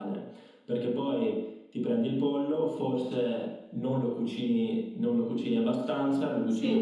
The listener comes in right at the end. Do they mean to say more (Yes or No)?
No